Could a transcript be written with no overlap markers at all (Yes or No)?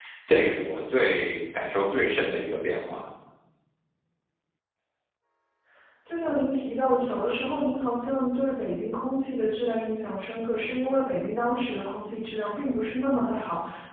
Yes